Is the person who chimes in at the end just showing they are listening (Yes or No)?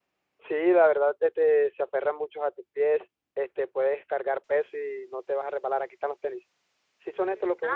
No